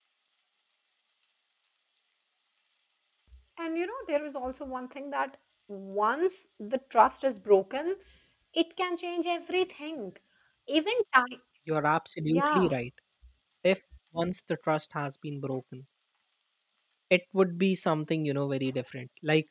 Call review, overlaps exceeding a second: none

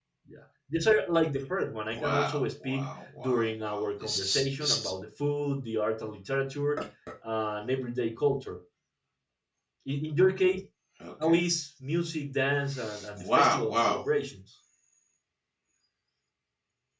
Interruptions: present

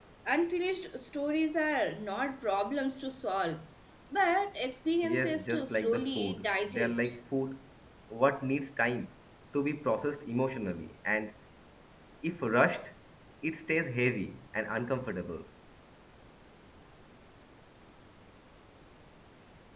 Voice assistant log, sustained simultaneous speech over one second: present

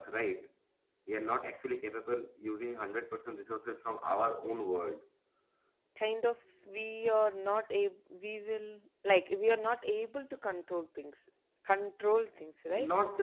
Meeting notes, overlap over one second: none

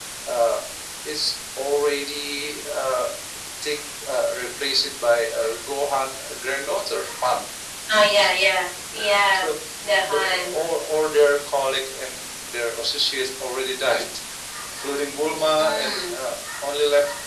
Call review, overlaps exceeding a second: none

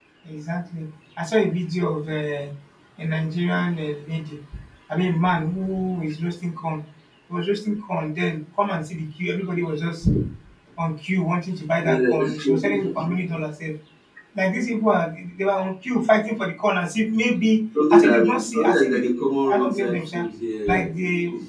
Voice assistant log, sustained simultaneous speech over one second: present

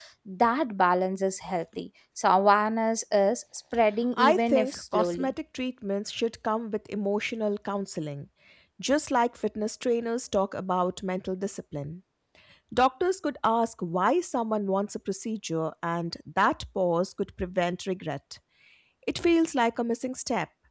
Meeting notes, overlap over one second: present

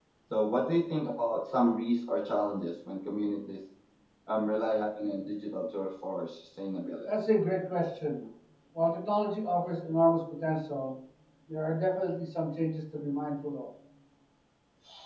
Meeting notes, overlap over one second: none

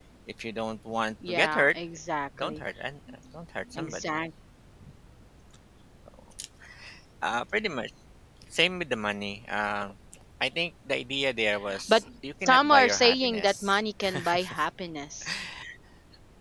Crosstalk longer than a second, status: present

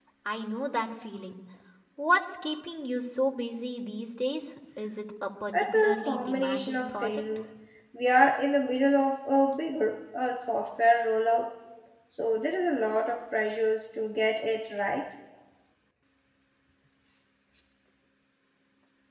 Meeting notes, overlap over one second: present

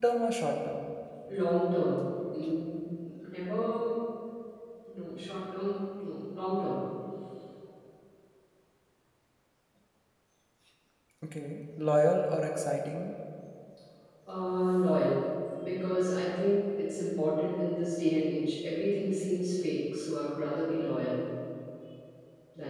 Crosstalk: none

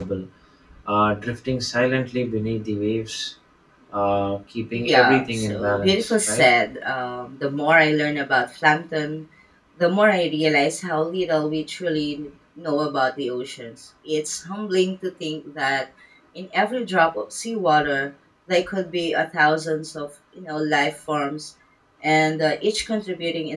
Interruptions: present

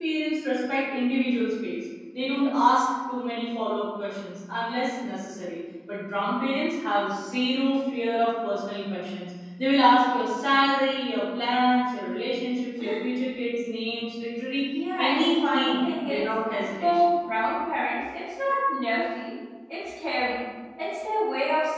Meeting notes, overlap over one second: present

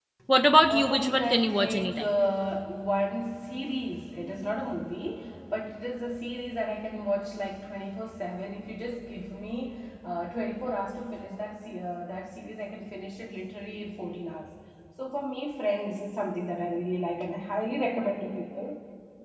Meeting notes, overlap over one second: present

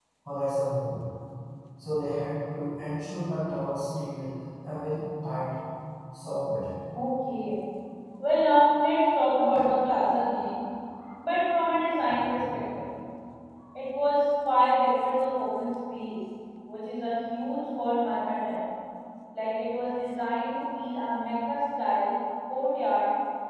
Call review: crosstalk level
none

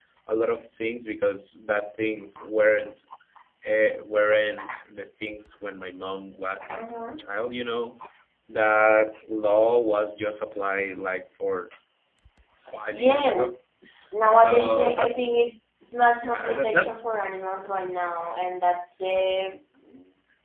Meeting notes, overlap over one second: present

